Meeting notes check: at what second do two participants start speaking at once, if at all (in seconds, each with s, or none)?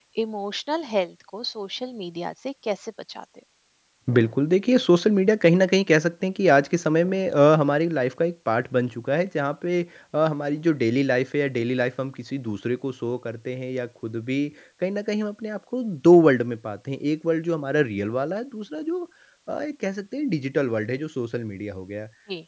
none